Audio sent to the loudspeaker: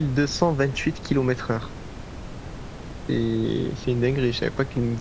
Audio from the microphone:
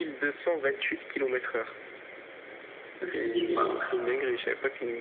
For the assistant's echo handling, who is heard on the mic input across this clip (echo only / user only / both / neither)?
both